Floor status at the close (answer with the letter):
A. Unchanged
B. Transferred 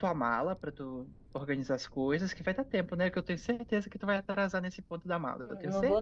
B